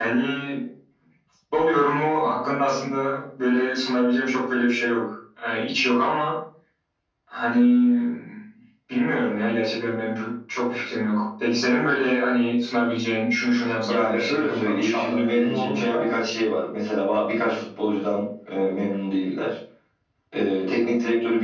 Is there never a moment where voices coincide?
No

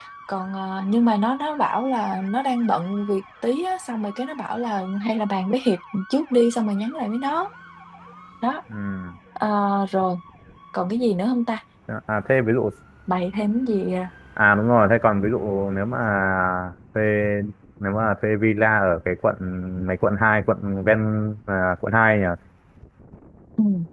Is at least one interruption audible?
No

